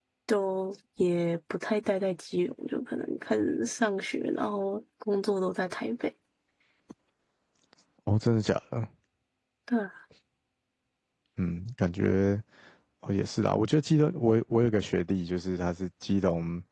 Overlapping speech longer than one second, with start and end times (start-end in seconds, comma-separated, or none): none